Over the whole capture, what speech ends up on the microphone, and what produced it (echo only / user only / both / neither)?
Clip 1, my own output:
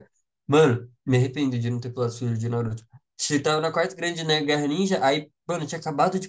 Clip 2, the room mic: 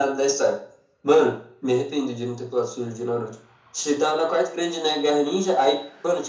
echo only